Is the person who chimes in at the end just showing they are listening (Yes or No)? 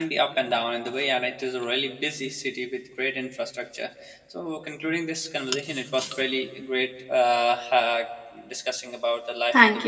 No